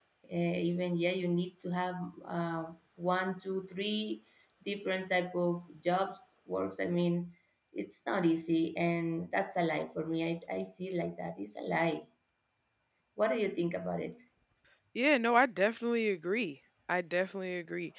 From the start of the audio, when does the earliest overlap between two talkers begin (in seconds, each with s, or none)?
none